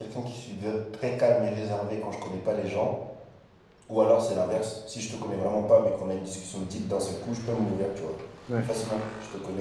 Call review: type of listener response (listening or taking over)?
listening